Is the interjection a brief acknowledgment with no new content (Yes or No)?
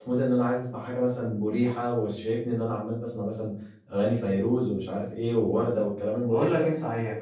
No